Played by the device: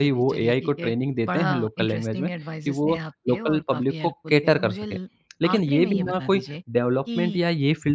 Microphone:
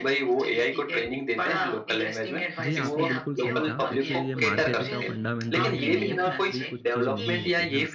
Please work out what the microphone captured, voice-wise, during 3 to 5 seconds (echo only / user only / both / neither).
both